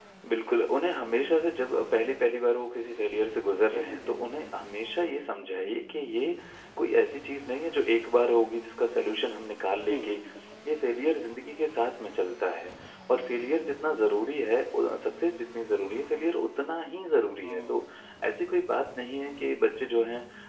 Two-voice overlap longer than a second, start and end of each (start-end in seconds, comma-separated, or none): none